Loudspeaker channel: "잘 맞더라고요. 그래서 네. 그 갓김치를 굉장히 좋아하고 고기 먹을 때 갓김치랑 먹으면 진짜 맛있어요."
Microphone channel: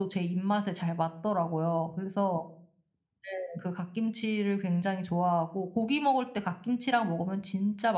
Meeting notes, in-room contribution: none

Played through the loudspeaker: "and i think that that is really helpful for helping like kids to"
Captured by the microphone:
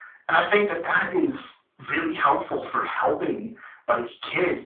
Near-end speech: none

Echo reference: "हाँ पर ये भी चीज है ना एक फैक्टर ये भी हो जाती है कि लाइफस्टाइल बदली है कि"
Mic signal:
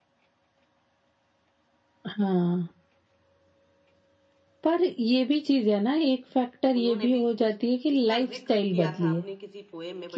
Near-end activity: present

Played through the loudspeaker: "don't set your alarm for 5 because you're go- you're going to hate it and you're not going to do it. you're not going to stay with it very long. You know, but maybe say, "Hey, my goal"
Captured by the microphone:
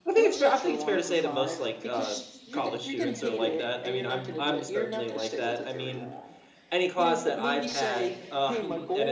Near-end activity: present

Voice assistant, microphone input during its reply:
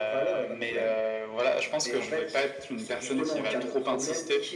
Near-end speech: none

